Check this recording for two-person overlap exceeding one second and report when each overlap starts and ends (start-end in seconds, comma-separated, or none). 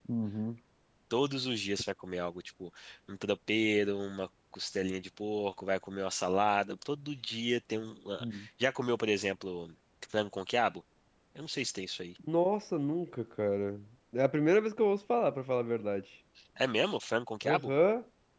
none